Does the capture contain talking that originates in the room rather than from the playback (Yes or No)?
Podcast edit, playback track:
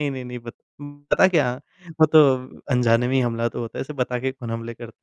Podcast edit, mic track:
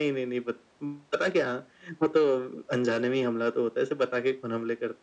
No